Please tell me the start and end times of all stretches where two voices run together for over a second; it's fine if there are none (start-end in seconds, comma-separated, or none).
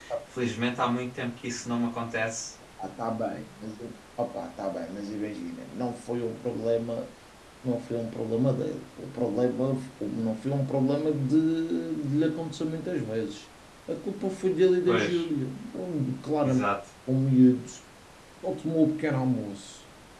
none